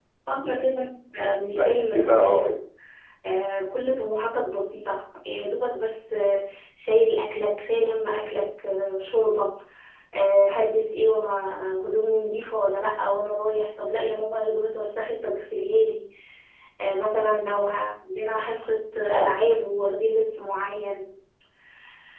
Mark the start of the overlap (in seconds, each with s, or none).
1.2 s